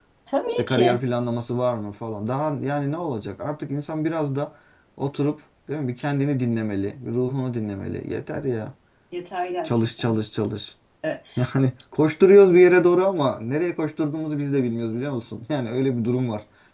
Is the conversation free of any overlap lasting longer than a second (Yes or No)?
Yes